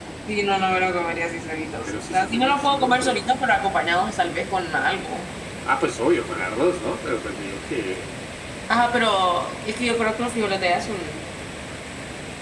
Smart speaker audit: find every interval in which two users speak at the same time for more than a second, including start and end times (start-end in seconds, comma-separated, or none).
1.8-3.2